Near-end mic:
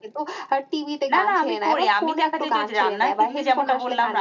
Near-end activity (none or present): present